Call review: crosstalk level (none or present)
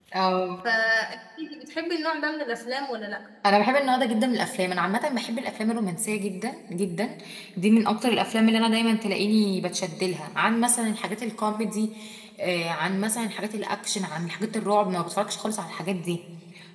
none